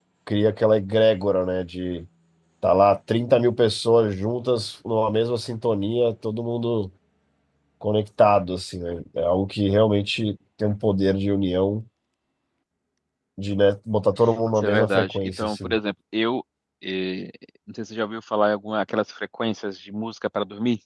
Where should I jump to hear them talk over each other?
14.6 s

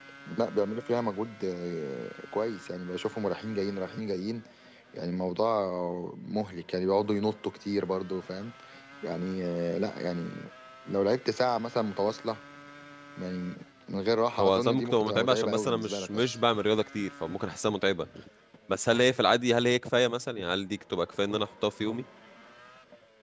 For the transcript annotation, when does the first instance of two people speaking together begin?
14.4 s

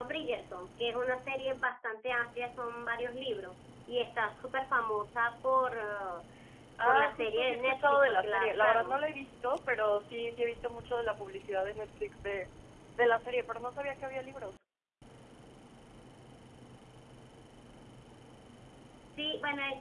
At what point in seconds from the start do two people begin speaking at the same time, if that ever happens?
6.8 s

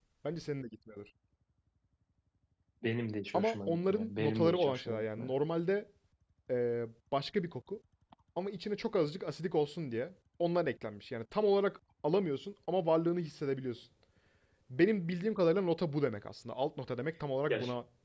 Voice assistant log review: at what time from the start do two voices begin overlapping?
3.3 s

